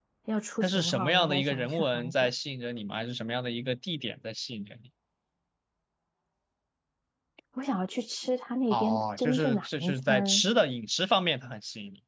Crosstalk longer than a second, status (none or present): present